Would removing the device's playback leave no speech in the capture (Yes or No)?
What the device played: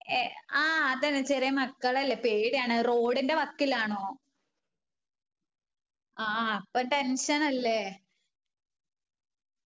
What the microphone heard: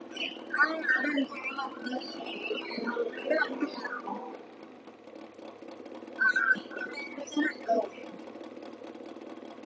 Yes